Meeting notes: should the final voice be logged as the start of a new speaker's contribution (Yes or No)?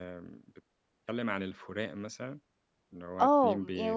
Yes